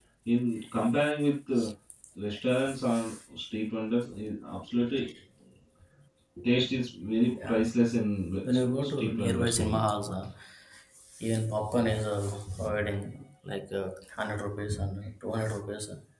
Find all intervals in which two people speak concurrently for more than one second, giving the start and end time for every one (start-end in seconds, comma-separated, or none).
8.4-9.9